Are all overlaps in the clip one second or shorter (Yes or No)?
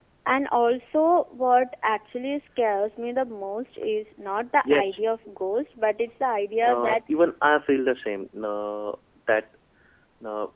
Yes